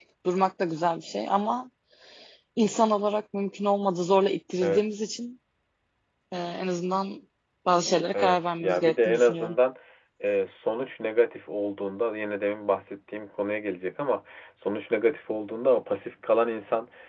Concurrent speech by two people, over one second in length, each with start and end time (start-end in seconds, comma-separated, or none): 8.2-9.6